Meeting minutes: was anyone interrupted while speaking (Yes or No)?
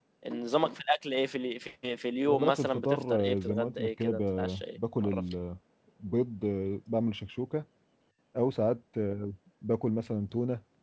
Yes